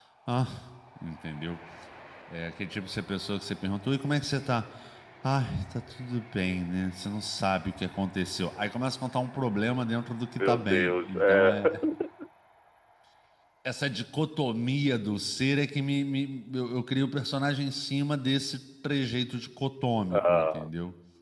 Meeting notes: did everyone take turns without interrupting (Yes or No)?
No